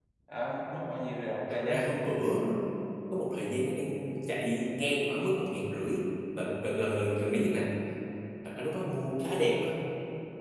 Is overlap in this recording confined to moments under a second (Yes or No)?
Yes